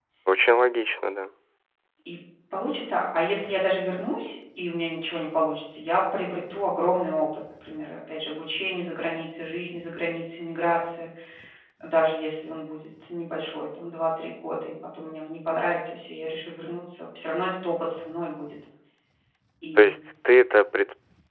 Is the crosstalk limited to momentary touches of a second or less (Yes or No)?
Yes